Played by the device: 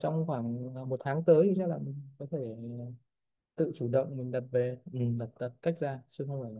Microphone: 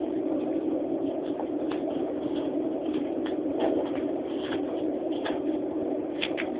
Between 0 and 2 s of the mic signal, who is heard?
neither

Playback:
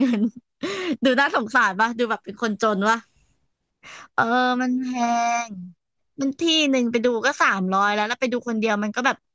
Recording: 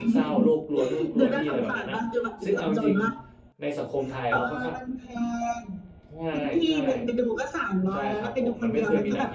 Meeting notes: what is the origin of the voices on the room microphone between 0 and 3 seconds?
both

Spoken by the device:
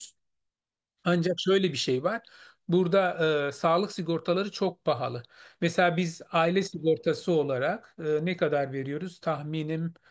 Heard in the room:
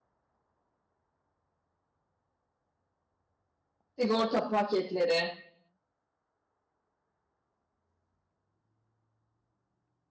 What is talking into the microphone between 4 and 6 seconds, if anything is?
user only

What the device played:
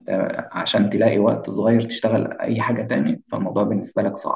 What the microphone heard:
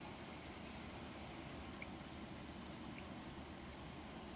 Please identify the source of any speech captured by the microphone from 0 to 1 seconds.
neither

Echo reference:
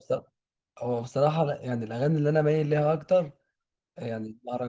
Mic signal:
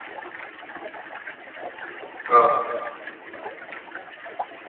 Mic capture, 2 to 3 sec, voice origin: user only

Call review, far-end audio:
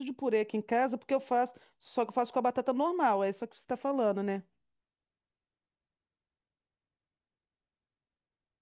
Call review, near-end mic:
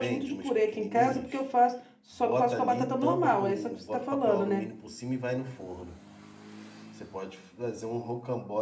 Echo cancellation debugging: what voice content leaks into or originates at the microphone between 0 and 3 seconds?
both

